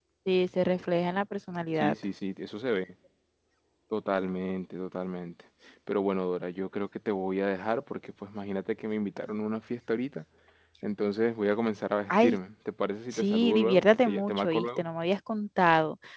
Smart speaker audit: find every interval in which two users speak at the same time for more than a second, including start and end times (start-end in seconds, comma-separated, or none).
13.1-14.8